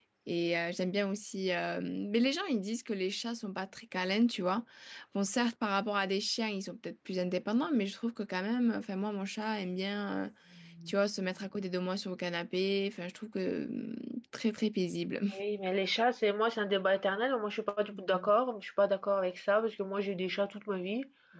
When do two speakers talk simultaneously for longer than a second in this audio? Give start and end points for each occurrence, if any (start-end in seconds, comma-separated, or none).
none